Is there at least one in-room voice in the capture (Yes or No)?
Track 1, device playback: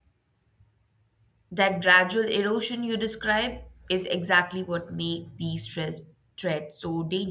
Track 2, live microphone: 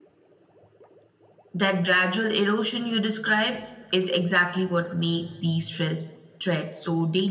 No